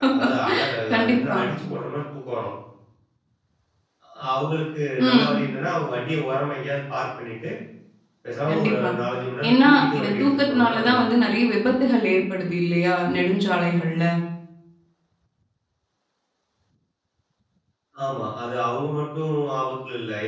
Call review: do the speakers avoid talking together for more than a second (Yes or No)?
No